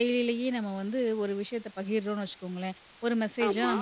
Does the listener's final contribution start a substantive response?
No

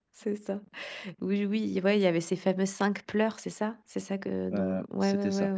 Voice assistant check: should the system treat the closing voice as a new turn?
Yes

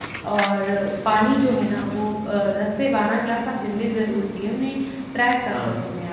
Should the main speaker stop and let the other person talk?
No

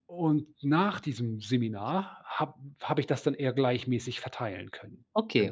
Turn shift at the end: Yes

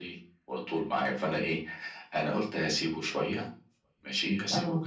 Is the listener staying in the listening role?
Yes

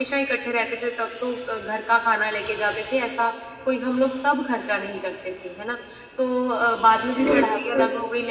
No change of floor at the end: Yes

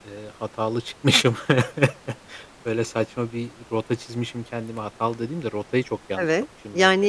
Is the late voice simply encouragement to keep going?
No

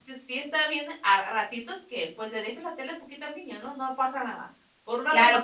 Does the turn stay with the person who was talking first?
No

